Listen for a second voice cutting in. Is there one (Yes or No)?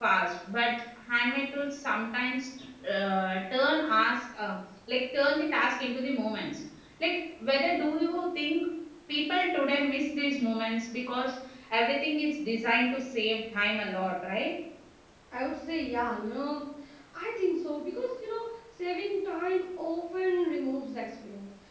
No